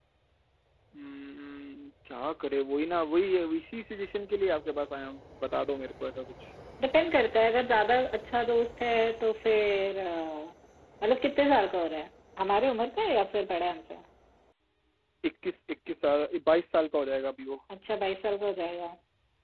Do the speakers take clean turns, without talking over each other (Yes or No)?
Yes